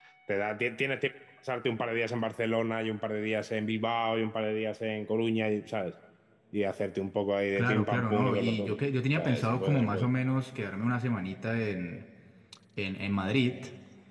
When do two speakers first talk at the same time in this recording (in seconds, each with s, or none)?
7.6 s